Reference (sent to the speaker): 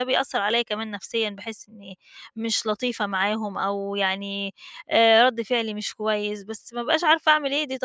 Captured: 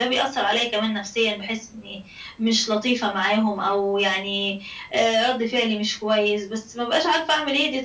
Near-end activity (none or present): none